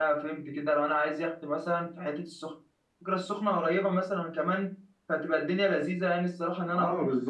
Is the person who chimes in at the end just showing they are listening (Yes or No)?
No